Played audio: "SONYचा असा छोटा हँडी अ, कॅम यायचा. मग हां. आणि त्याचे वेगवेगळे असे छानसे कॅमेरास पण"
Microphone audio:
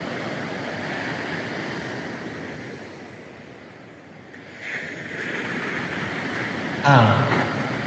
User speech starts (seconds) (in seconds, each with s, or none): 6.8 s